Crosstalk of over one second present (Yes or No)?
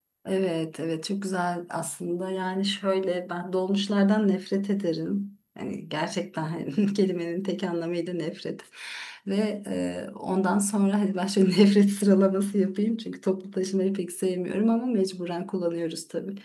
No